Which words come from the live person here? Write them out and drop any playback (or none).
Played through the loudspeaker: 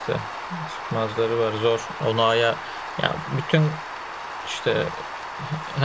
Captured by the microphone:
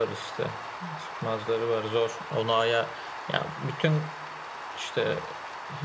none